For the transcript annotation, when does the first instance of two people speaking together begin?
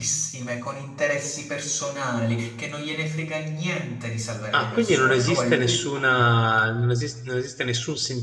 4.5 s

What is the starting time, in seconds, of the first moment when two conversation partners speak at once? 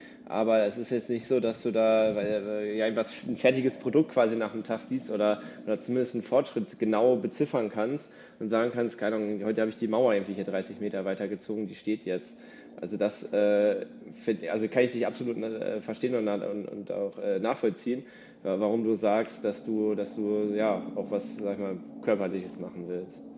none

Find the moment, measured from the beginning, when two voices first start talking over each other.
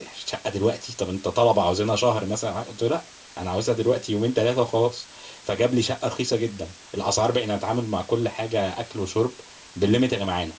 none

